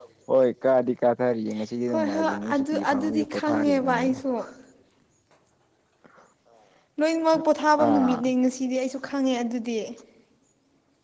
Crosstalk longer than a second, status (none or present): present